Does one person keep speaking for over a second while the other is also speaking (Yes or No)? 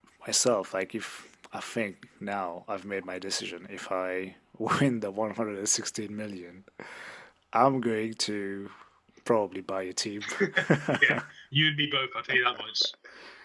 No